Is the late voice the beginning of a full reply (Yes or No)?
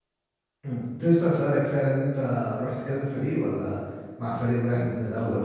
Yes